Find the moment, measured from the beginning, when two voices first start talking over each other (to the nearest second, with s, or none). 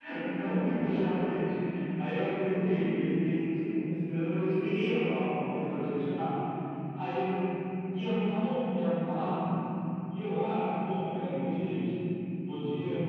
none